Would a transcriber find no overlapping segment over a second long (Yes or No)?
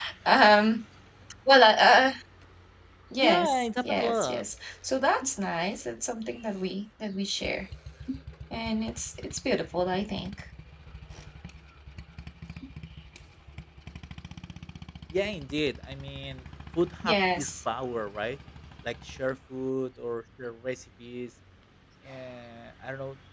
No